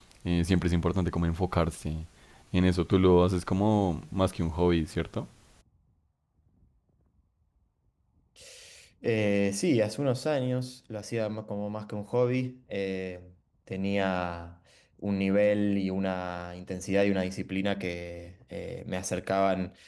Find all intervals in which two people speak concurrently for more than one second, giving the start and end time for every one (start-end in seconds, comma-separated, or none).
none